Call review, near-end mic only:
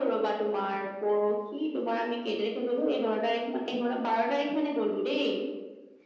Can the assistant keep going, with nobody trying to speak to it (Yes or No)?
Yes